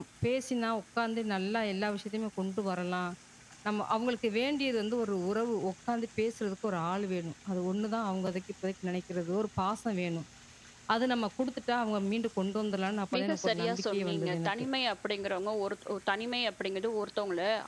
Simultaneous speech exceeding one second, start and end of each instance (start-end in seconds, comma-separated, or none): 13.2-14.5